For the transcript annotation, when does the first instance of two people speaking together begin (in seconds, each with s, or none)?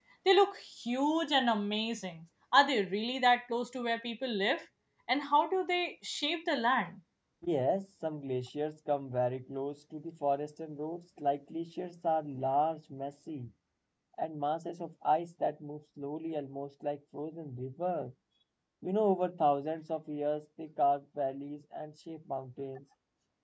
none